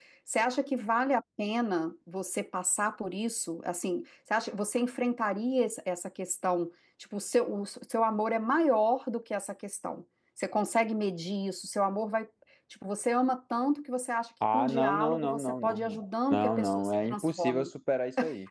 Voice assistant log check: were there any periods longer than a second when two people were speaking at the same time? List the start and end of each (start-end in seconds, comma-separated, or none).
14.5-17.7